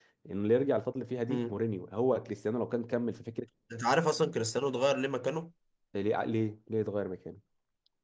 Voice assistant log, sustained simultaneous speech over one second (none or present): none